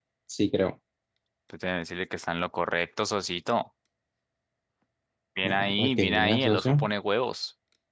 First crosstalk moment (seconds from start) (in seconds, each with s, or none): 5.4 s